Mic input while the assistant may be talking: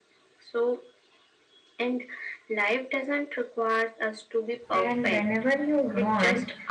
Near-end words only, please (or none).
And whenever you want,